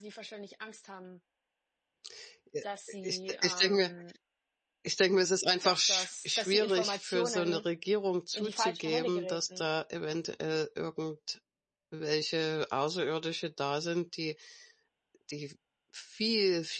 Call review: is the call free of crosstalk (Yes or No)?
No